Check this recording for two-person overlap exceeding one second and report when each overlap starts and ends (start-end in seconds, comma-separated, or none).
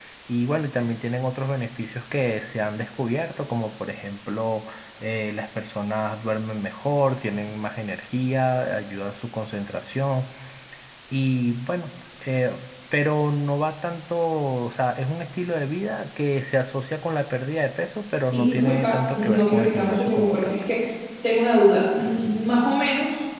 18.3-20.5